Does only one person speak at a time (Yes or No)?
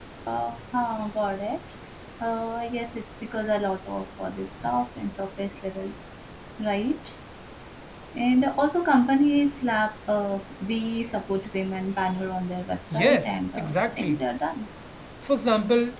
No